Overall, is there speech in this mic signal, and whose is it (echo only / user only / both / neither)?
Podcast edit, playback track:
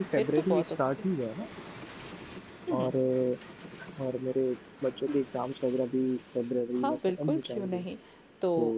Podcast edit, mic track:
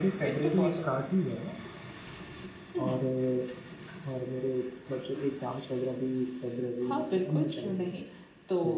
echo only